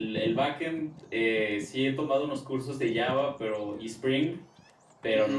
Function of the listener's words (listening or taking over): listening